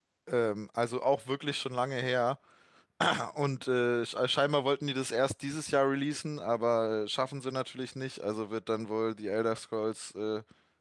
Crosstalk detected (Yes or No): No